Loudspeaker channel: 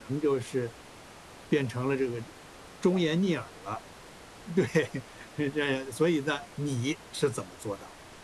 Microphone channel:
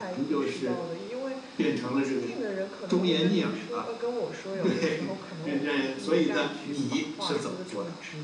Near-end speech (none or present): present